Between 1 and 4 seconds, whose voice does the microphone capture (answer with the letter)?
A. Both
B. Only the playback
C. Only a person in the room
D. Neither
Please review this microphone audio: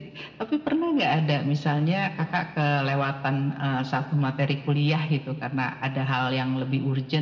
B